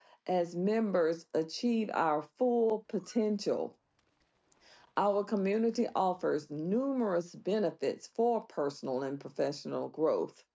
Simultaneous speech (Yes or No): No